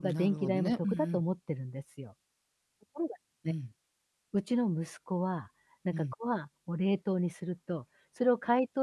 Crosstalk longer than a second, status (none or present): present